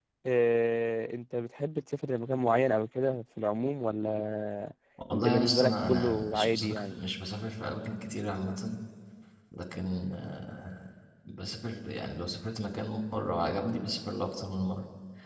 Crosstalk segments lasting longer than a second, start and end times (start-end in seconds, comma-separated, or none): 5.1-7.0